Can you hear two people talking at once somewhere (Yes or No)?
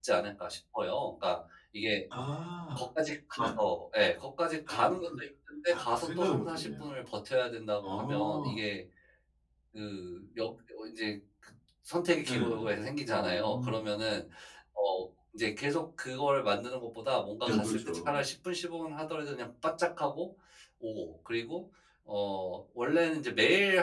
Yes